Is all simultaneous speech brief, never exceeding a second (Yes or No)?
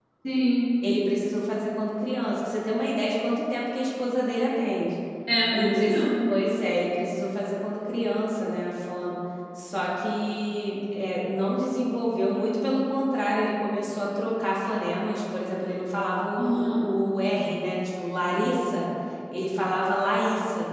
Yes